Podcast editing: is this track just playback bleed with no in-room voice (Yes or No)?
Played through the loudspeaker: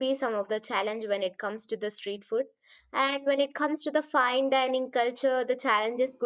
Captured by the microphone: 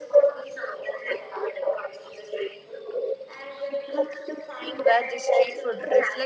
No